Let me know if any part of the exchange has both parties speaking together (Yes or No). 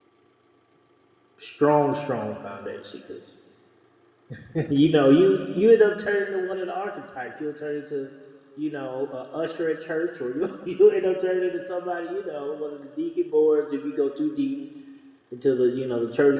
No